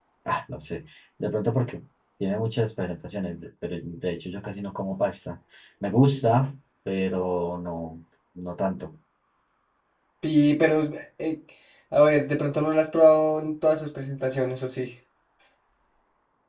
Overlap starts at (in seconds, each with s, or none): none